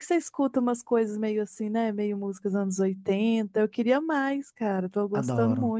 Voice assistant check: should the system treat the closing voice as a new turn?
Yes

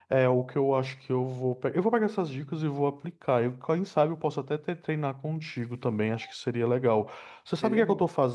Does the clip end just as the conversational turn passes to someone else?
No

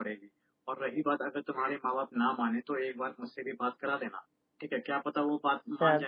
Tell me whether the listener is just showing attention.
No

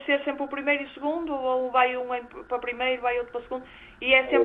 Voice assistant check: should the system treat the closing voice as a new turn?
No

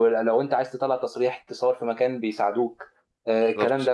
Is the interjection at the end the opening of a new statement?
No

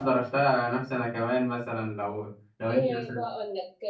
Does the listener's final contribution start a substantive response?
Yes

